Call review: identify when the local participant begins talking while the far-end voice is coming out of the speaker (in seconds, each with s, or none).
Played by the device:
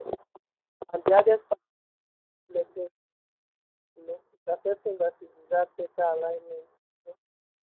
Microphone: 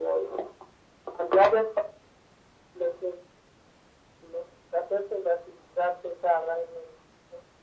none